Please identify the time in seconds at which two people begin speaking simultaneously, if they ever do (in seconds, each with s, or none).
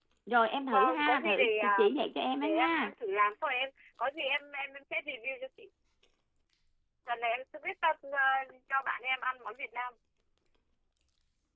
0.6 s